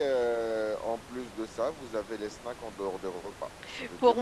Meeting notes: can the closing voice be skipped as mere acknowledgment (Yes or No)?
No